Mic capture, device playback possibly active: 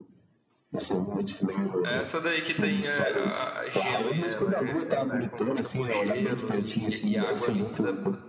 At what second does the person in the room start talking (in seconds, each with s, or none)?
1.8 s